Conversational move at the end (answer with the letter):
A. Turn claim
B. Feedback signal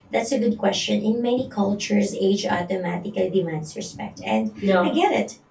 B